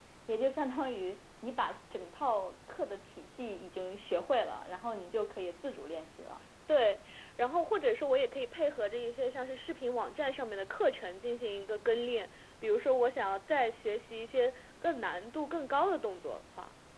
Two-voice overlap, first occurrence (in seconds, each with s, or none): none